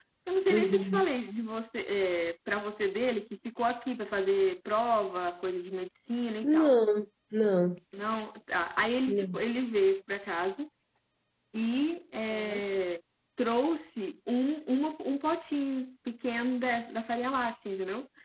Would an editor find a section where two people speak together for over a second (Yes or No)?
No